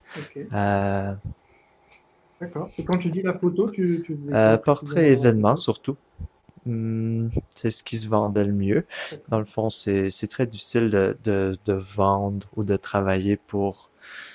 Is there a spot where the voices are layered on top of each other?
Yes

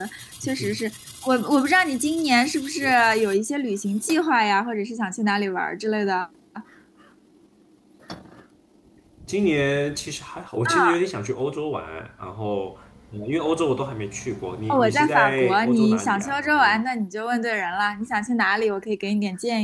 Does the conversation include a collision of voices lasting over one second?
Yes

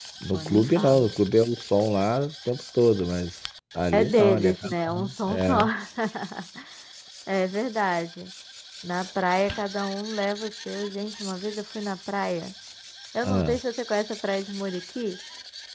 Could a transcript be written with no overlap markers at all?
No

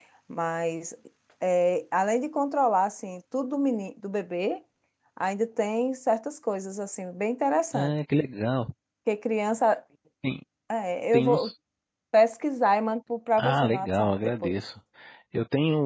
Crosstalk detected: Yes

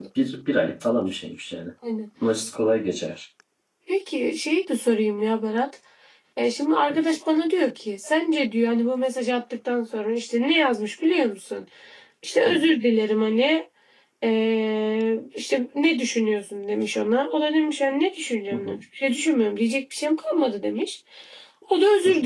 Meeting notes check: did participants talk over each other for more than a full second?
No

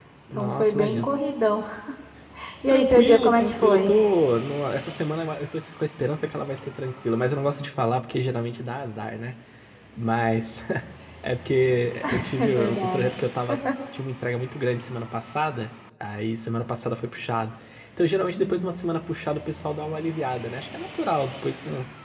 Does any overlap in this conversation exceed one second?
Yes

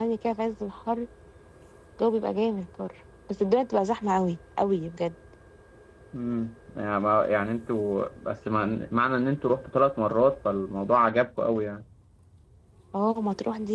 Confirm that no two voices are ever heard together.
Yes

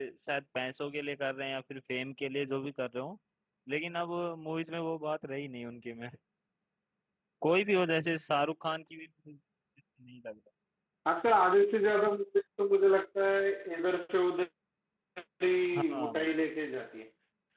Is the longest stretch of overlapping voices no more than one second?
Yes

